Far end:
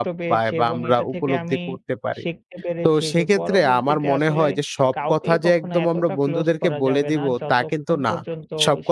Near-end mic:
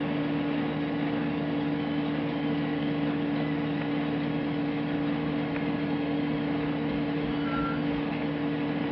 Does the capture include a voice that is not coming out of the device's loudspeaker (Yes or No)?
No